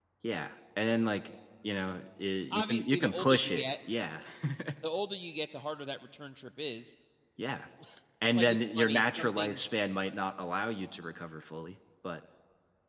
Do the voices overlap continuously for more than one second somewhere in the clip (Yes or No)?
Yes